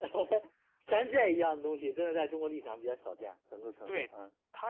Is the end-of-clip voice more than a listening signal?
Yes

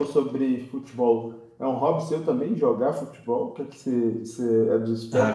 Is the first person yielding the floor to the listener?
Yes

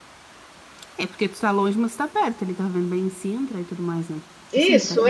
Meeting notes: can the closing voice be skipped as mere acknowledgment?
No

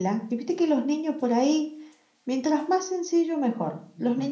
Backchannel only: Yes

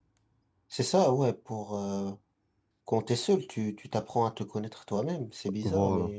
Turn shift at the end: No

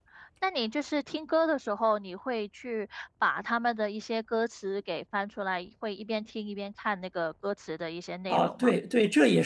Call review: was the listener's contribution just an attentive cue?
No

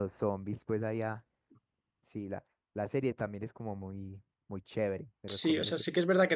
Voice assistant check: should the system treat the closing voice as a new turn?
Yes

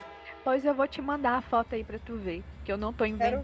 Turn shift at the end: No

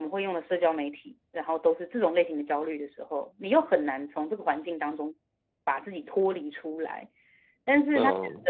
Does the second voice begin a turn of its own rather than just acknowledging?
No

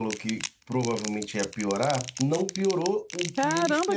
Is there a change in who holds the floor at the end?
Yes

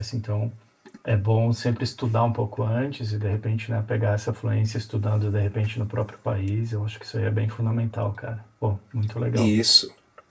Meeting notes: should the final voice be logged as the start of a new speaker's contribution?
Yes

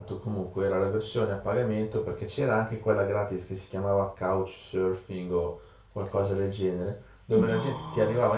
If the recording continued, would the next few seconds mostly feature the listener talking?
No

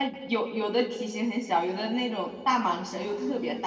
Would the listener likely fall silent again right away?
No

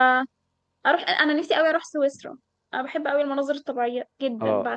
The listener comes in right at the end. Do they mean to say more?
Yes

